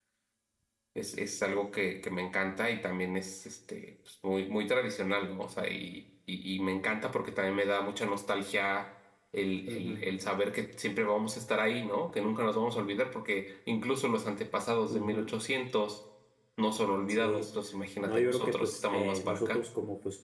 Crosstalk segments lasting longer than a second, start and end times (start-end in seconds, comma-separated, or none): 18.0-19.6